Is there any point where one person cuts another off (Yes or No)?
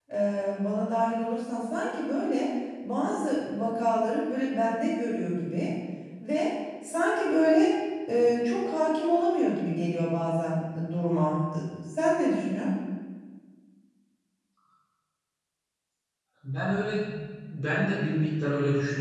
No